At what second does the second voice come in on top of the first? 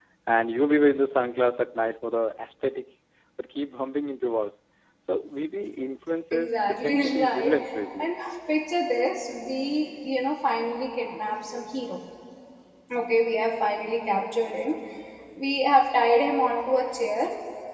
6.3 s

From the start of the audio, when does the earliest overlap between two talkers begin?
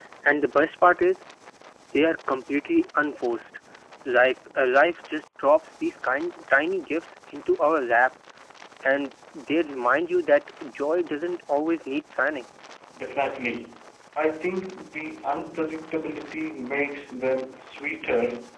none

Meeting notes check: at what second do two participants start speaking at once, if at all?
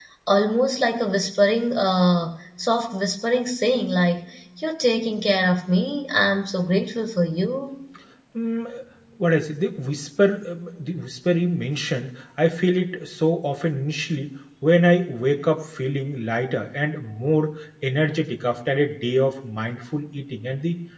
none

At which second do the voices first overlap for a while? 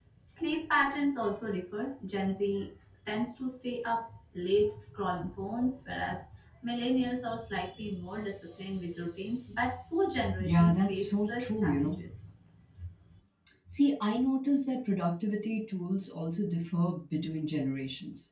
10.4 s

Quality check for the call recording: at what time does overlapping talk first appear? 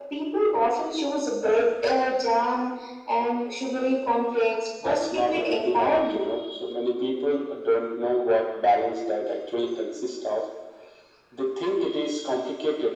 4.8 s

